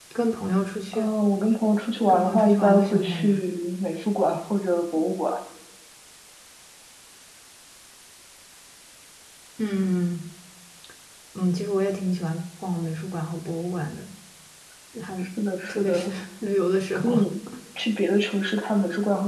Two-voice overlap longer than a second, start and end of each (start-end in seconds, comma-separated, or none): 2.1-3.4